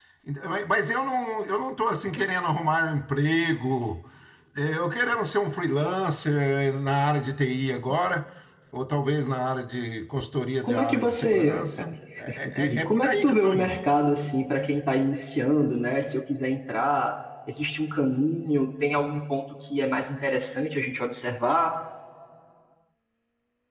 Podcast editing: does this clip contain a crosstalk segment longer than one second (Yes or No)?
Yes